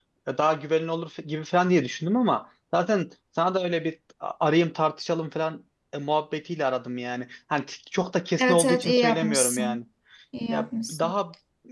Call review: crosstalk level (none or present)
present